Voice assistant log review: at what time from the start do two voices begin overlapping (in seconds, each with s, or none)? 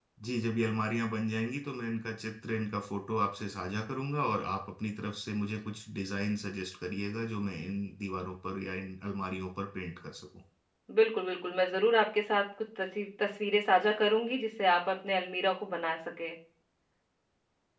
none